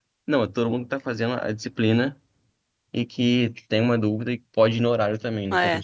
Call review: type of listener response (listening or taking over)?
taking over